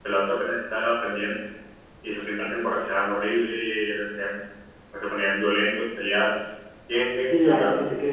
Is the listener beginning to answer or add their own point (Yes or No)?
Yes